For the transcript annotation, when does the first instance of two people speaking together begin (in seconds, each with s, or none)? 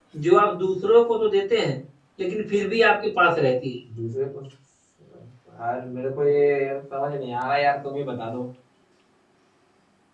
none